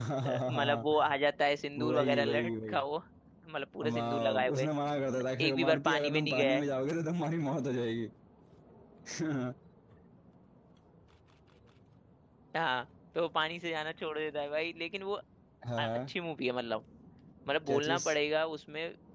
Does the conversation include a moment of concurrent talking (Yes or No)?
Yes